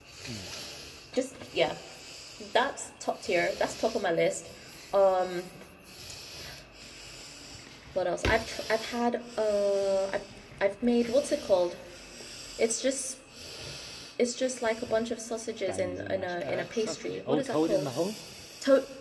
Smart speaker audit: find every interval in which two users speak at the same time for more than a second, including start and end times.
15.7-17.9

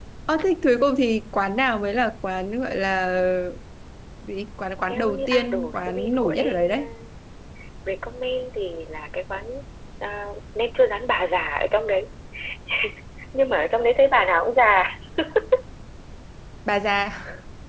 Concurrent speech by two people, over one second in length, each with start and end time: 4.9-6.9

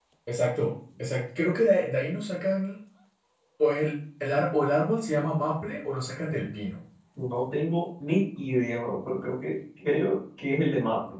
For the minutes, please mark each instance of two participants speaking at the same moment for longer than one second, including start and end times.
none

